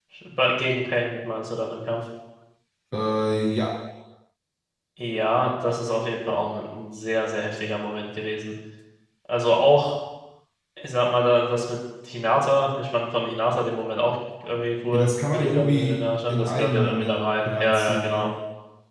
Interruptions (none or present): present